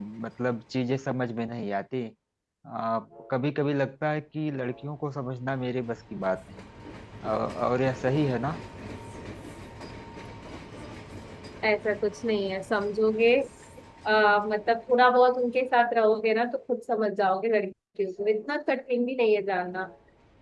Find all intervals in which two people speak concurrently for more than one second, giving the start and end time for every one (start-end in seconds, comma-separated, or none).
none